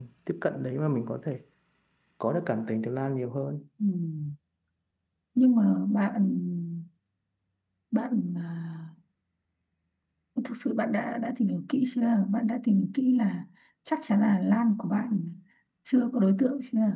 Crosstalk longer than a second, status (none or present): none